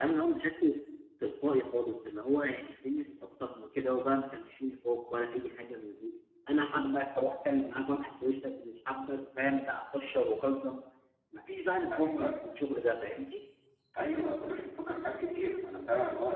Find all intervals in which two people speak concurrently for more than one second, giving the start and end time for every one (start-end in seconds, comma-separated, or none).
none